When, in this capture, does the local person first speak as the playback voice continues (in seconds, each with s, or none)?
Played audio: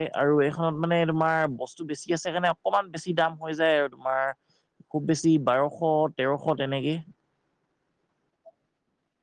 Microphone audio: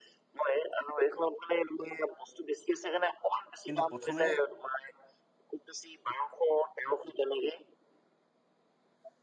3.6 s